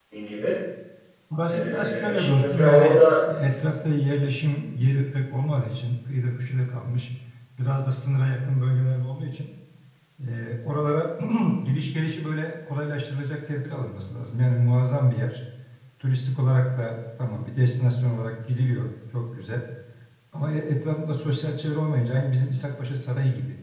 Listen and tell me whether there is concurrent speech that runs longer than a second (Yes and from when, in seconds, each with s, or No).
Yes, from 1.5 s